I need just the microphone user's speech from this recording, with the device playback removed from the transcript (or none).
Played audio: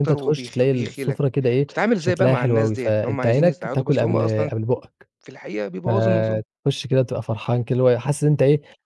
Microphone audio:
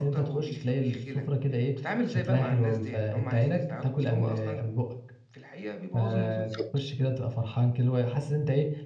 بالضبط،